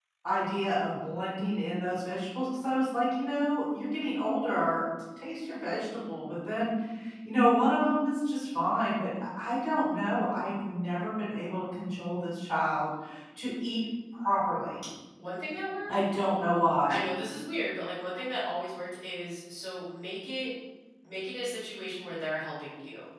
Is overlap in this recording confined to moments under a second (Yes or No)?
Yes